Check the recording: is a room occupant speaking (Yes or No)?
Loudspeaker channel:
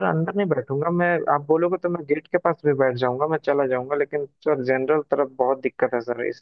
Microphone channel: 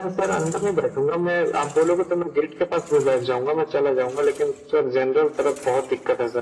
No